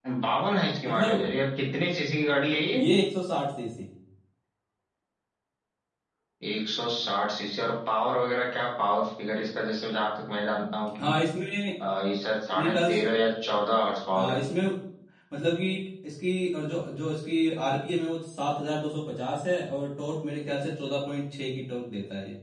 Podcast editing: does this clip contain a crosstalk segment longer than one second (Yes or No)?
No